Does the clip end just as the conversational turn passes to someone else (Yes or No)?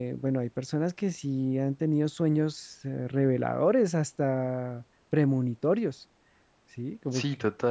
Yes